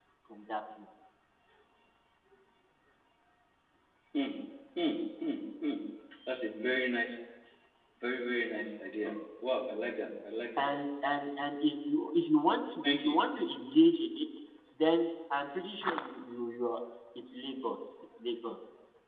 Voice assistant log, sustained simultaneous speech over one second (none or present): none